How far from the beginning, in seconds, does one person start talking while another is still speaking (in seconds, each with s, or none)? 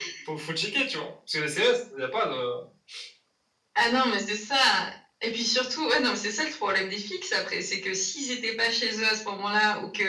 none